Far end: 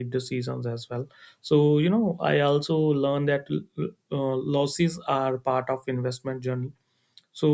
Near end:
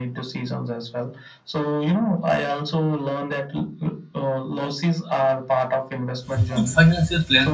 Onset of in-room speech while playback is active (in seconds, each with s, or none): 6.3 s